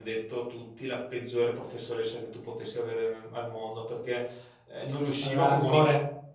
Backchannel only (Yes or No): Yes